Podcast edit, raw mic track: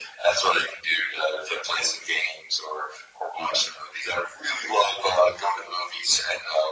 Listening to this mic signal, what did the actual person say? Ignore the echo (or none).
none